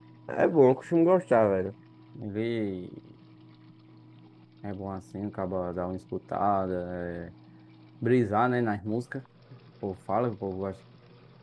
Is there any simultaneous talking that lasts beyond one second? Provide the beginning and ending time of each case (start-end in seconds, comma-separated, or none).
none